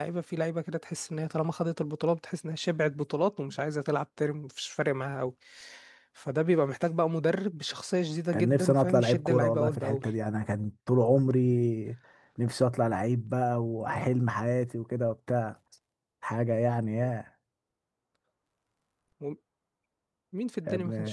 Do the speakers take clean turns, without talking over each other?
No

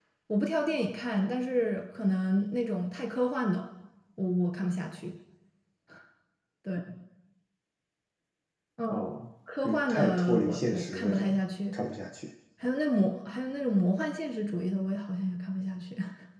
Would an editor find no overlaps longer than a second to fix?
No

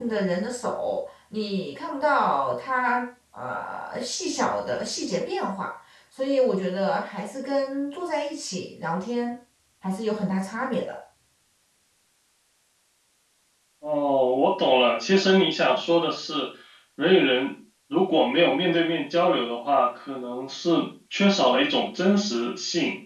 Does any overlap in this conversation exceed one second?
No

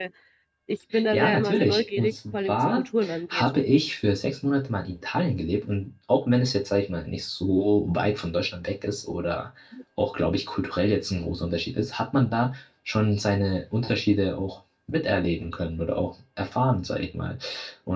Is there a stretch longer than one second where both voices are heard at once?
Yes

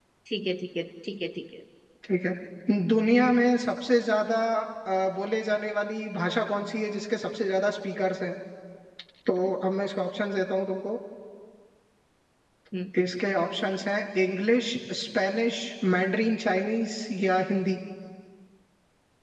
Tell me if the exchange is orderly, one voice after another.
Yes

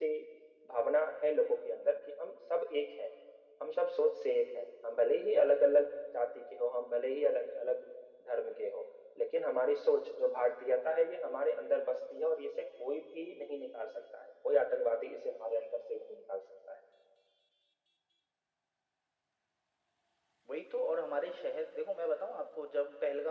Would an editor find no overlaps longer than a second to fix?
Yes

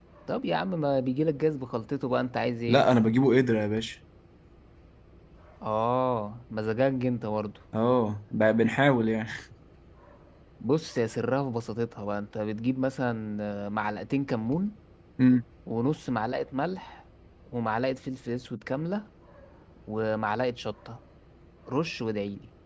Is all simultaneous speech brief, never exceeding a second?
Yes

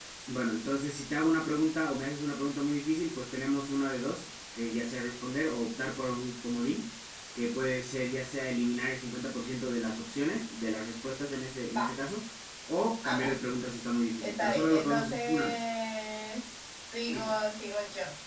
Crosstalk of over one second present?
Yes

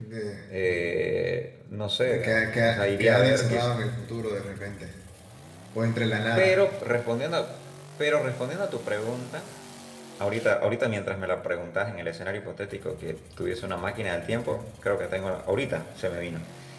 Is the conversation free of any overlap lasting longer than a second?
No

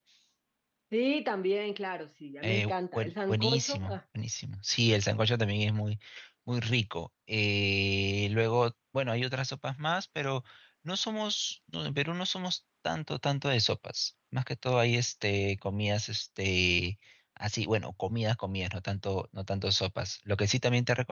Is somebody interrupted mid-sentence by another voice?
Yes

